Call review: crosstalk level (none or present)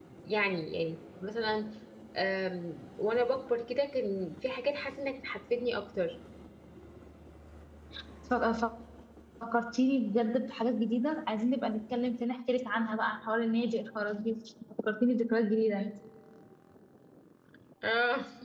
none